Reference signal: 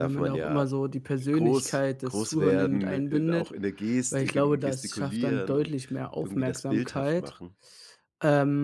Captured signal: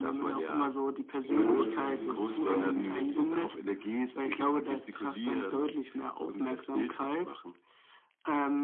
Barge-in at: 1.2 s

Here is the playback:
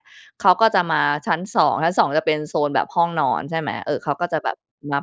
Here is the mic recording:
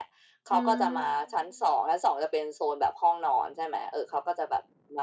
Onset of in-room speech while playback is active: 0.5 s

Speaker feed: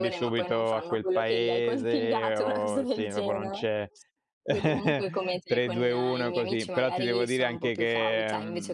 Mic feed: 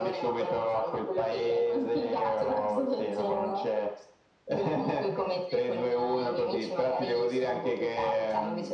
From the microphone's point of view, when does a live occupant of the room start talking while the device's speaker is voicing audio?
none

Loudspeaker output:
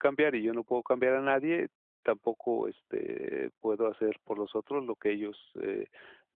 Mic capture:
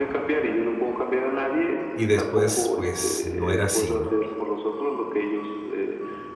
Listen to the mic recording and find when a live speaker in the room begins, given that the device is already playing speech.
1.9 s

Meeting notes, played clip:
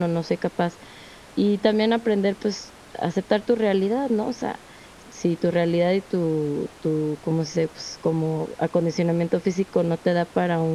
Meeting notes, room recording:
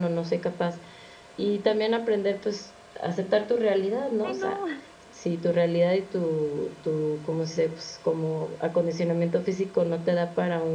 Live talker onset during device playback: 4.2 s

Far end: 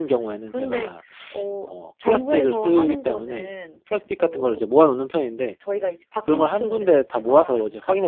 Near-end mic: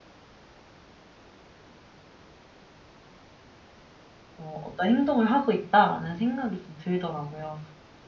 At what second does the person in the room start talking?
4.3 s

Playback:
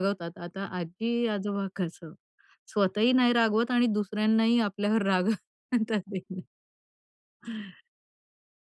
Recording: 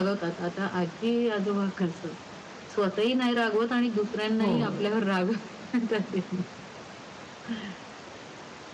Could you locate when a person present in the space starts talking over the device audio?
4.4 s

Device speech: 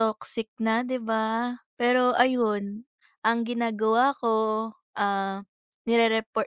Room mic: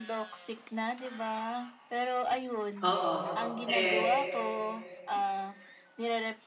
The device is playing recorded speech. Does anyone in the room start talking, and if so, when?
2.9 s

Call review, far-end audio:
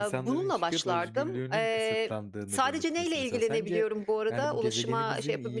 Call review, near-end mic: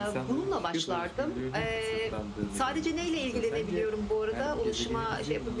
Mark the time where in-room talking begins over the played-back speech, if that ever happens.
none

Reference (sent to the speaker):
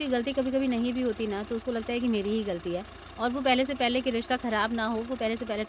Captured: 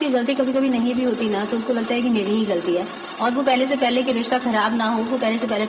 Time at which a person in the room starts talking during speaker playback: none

